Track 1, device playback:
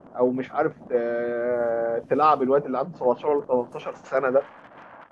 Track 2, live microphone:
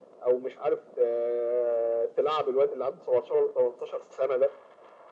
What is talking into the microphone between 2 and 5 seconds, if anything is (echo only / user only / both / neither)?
echo only